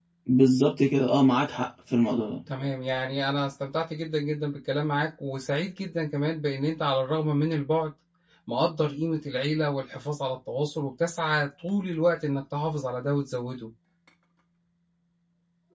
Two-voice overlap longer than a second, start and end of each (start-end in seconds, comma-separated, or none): none